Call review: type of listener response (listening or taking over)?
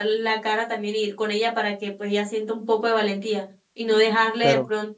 listening